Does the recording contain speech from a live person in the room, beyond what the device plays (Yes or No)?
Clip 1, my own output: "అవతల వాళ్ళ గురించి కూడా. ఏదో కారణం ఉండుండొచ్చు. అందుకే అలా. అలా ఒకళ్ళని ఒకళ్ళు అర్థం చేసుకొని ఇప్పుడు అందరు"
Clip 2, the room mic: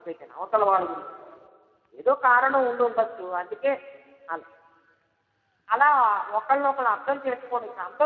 No